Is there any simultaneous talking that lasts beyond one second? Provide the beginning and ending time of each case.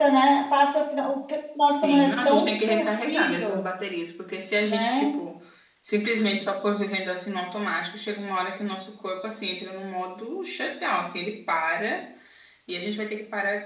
1.6-3.7

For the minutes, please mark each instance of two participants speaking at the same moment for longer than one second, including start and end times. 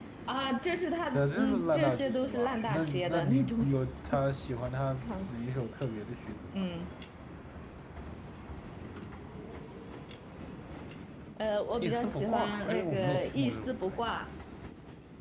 1.1-3.6, 11.8-14.0

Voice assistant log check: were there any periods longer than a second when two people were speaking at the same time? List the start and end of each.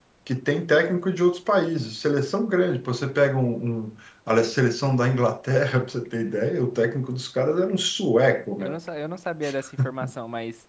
none

